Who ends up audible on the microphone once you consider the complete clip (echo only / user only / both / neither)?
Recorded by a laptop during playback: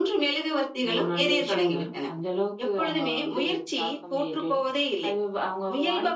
echo only